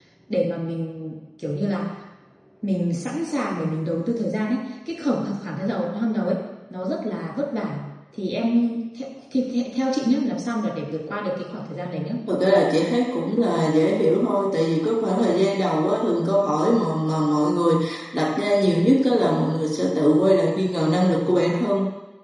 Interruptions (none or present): none